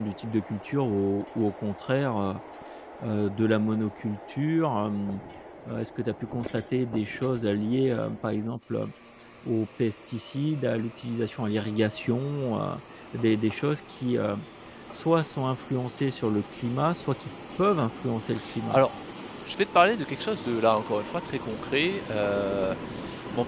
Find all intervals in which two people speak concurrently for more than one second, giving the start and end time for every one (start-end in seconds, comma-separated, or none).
none